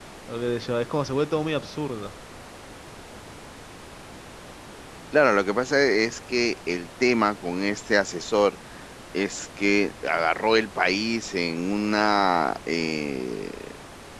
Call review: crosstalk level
none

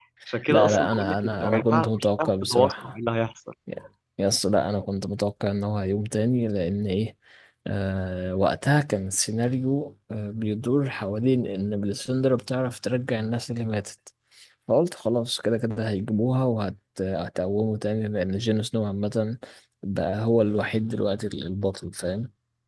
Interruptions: present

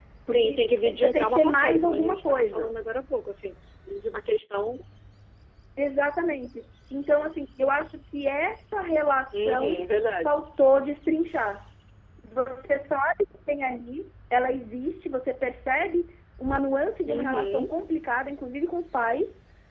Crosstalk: present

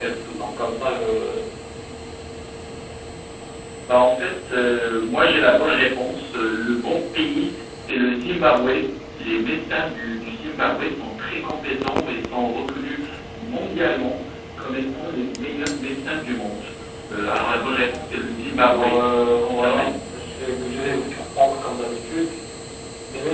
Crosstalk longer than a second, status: present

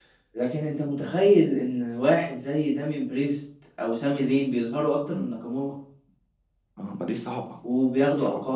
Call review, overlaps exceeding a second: none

